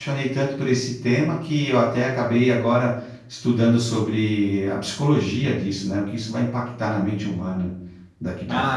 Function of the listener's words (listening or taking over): taking over